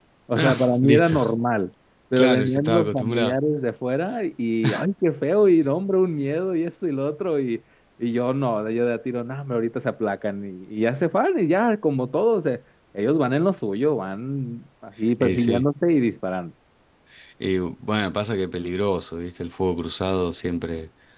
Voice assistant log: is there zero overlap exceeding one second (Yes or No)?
No